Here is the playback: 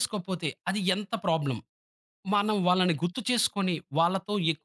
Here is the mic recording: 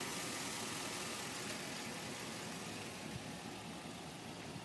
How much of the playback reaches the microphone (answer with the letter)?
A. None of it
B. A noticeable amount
A